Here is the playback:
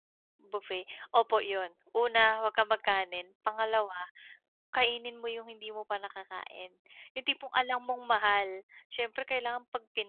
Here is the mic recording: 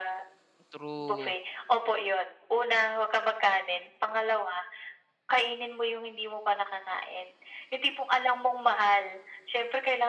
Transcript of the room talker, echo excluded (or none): True.